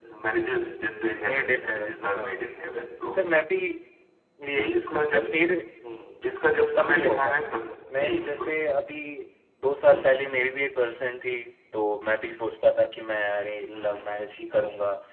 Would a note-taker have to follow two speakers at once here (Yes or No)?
Yes